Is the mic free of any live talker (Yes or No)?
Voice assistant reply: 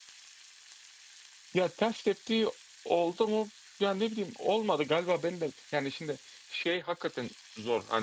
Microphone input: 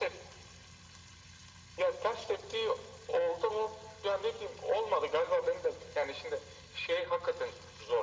Yes